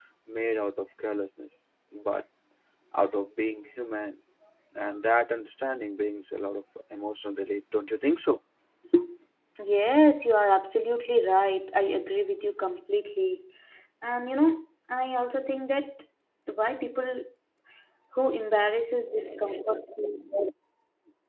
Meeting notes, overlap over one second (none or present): none